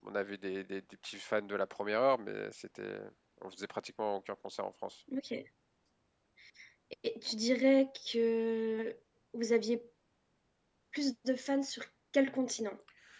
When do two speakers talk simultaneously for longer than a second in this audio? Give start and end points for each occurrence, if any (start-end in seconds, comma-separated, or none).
none